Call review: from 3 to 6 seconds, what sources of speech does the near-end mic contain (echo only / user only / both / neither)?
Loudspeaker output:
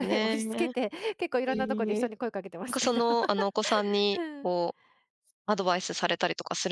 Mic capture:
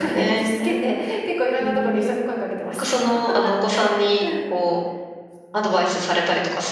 echo only